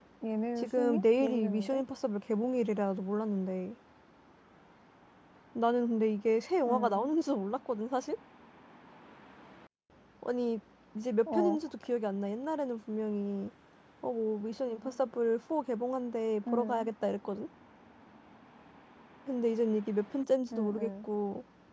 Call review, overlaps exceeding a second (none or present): present